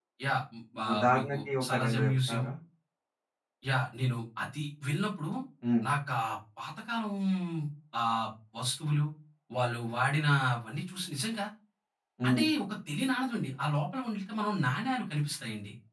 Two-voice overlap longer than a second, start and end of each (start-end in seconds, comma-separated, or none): 0.9-2.4